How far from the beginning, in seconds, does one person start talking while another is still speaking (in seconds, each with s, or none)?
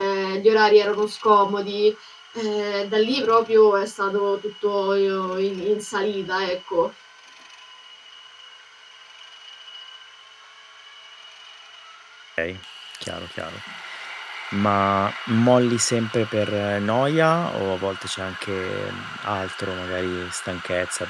none